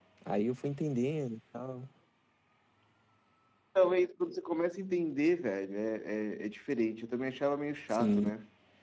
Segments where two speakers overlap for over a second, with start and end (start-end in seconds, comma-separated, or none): none